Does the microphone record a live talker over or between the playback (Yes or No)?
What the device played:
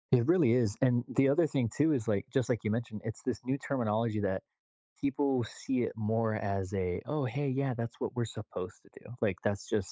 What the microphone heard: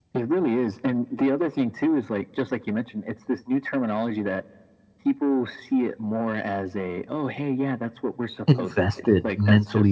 Yes